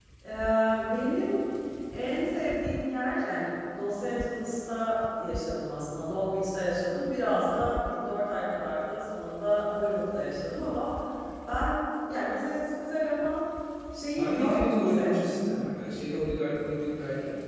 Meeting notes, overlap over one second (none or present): present